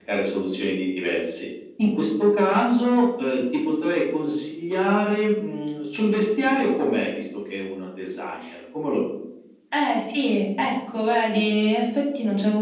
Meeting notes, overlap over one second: none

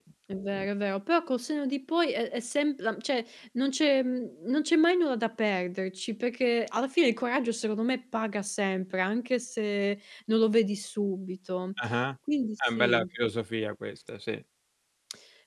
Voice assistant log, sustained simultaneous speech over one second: none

